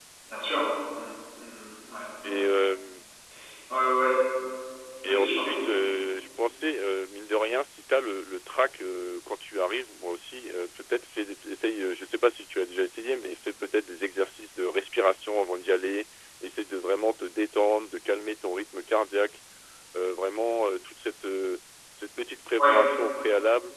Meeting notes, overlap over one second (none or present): none